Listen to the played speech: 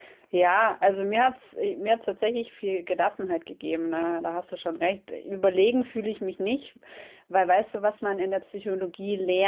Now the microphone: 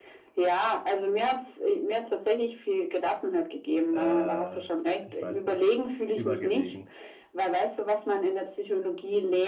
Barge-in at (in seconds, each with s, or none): 3.9 s